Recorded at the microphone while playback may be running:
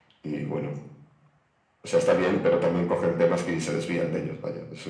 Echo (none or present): present